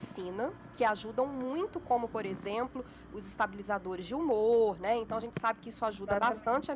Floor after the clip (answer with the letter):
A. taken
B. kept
B